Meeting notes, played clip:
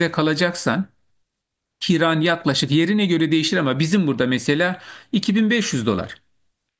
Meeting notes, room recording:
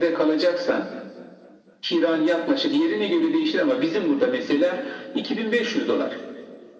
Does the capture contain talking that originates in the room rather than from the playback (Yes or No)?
No